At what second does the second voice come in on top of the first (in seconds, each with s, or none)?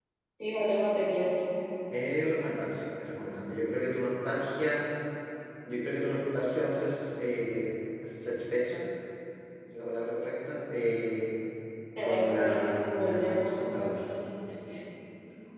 12.0 s